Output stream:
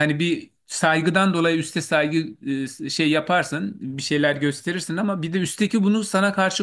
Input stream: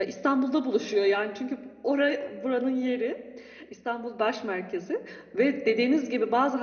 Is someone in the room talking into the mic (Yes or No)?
Yes